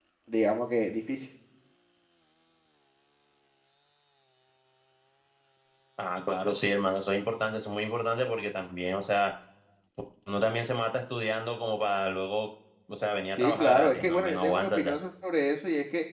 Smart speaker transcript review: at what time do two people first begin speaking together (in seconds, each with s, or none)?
13.4 s